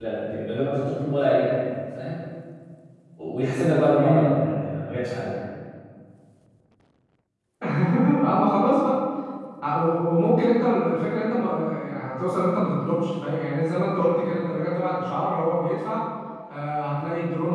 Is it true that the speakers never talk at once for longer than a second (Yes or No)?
Yes